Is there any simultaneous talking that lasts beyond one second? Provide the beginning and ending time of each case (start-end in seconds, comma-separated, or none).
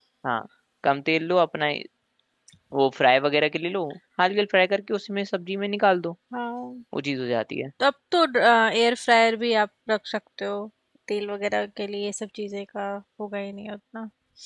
none